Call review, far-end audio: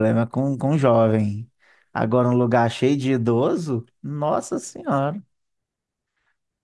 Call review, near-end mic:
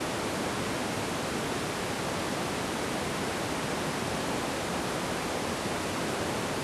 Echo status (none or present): none